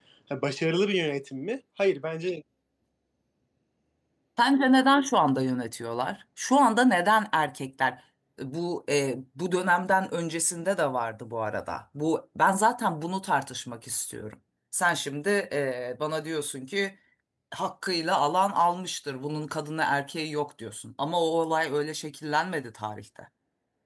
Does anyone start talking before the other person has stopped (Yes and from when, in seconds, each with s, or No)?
No